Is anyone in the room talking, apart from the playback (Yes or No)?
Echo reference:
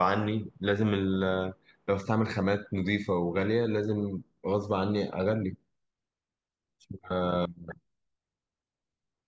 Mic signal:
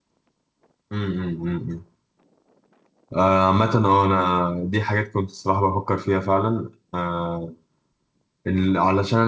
Yes